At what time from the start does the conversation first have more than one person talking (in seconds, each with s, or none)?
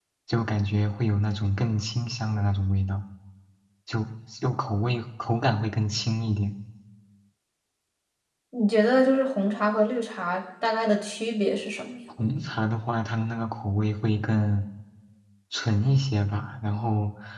none